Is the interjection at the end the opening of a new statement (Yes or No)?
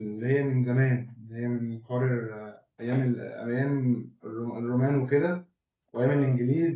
No